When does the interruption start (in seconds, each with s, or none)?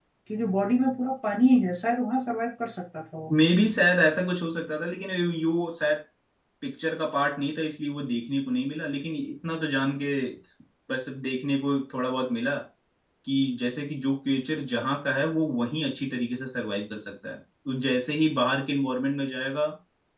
none